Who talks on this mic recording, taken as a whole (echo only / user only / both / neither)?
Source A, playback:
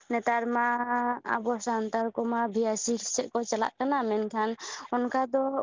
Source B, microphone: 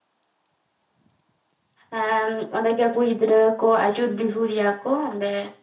user only